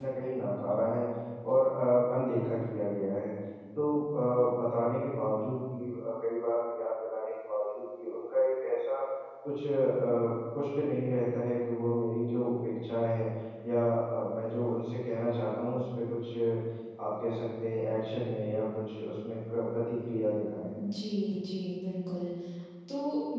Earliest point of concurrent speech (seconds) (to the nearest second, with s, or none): none